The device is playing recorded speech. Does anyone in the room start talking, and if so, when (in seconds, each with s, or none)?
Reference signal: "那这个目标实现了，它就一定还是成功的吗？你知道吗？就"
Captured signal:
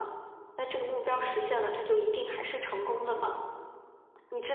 1.1 s